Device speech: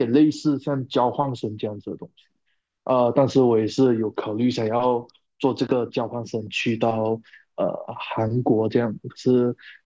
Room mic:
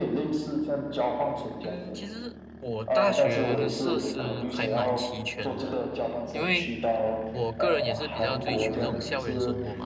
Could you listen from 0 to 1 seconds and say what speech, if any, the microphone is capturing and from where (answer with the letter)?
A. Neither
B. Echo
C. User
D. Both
B